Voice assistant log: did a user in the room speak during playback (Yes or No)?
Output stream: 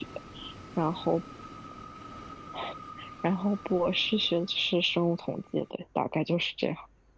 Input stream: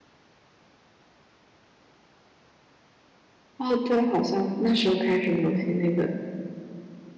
Yes